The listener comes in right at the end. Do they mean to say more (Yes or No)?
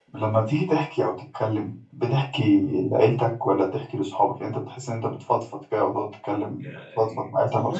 Yes